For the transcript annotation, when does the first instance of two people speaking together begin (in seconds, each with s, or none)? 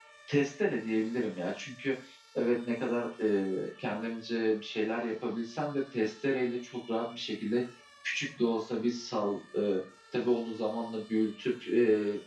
none